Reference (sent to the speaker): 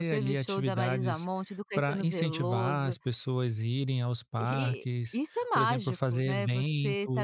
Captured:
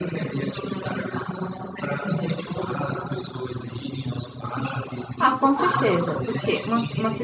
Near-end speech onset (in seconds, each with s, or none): 5.2 s